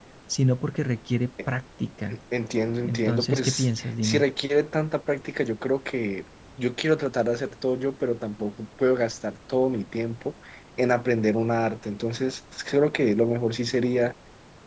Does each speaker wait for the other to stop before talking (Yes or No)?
No